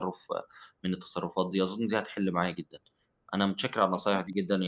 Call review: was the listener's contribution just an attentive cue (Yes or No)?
Yes